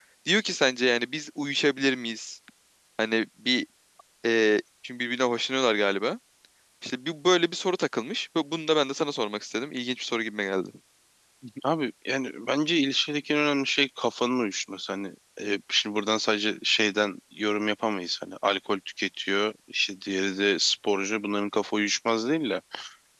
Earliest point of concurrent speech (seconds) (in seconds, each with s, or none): none